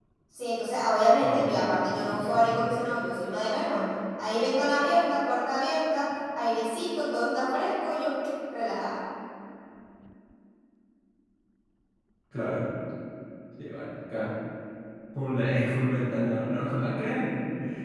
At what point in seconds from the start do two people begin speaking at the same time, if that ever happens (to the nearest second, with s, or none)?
1 s